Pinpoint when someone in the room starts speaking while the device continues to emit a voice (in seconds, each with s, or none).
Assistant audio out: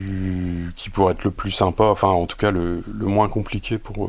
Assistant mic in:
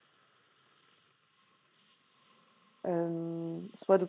2.9 s